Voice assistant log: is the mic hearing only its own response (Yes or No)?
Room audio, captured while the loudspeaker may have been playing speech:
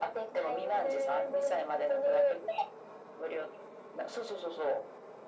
Yes